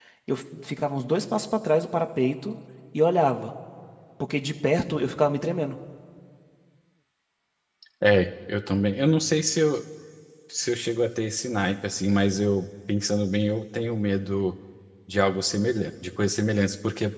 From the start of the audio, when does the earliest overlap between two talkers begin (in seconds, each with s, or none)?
none